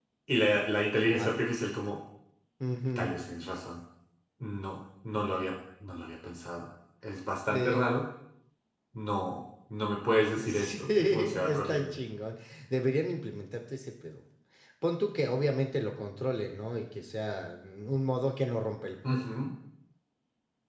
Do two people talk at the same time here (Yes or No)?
Yes